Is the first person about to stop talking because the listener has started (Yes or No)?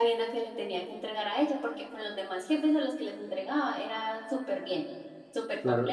Yes